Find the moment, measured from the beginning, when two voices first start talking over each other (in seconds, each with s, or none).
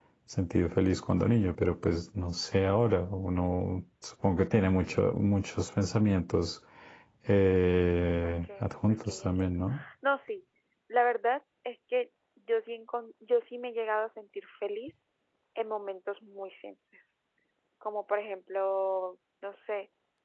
8.2 s